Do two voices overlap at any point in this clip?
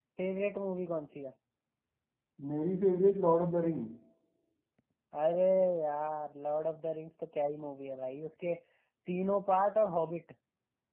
No

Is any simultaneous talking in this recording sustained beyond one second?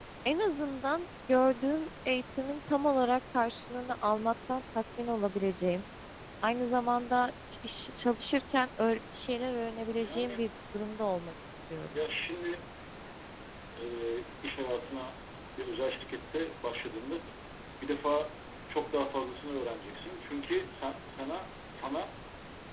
No

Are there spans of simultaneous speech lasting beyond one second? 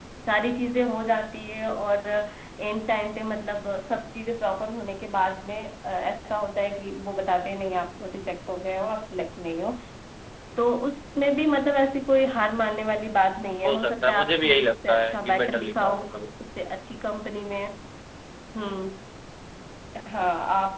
Yes, from 13.6 s

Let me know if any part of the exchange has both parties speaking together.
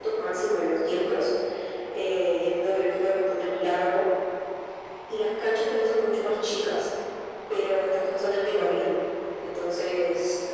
No

